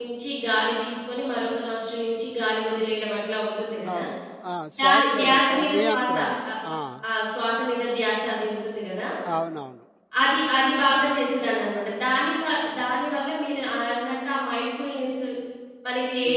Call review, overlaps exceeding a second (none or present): present